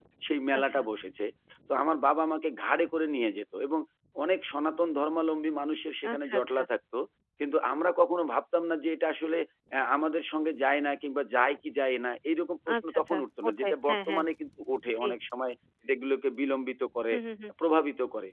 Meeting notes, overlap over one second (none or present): present